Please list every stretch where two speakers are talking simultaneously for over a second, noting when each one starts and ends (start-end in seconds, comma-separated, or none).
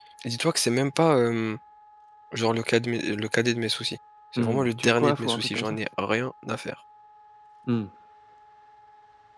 4.4-5.8